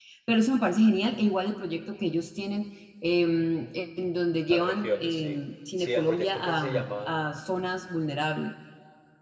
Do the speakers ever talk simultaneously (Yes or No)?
Yes